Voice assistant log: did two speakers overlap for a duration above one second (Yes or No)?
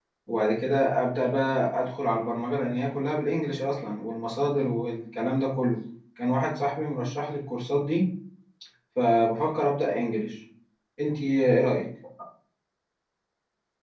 No